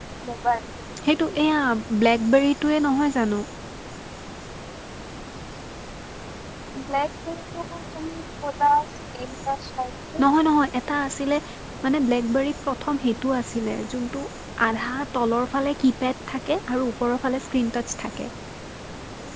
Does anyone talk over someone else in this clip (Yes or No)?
No